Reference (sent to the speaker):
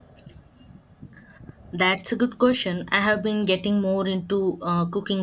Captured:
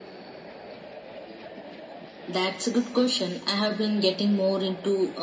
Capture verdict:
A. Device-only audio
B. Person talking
A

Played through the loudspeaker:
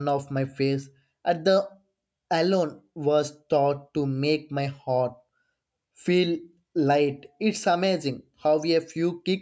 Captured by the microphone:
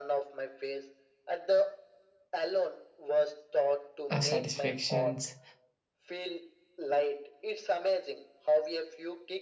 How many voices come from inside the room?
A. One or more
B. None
A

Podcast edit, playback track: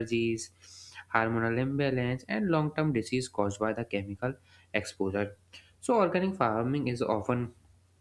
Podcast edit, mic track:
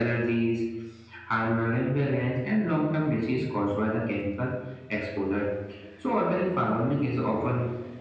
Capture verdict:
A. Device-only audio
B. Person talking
A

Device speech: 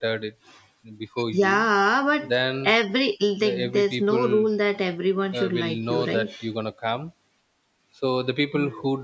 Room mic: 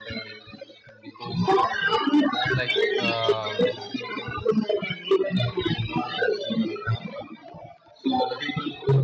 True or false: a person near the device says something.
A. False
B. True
B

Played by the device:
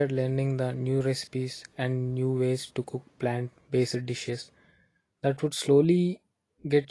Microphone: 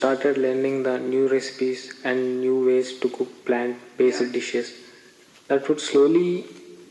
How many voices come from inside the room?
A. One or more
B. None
A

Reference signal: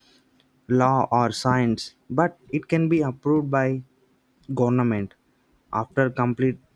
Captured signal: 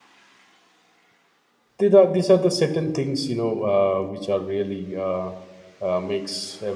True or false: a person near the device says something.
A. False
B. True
B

